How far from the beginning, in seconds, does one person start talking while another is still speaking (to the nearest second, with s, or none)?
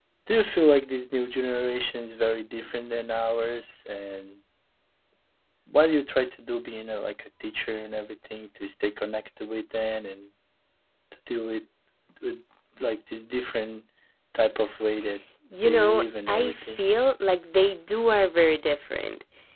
16 s